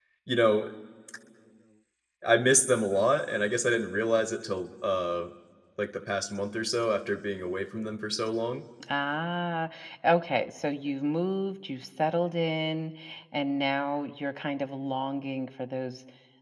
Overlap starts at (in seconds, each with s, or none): none